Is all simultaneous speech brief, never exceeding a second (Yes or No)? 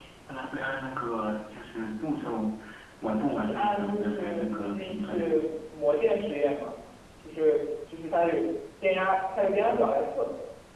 No